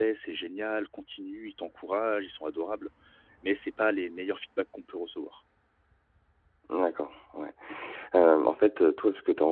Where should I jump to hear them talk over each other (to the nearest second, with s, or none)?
none